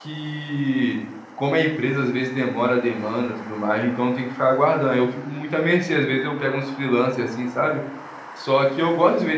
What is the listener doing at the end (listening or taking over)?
listening